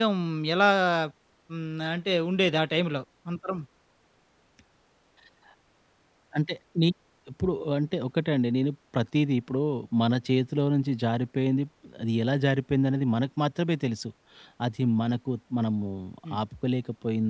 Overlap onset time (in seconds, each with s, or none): none